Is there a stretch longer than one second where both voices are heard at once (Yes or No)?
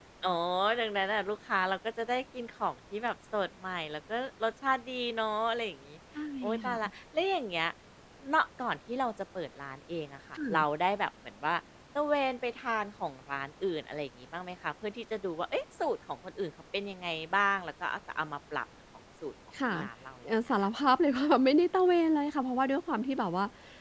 No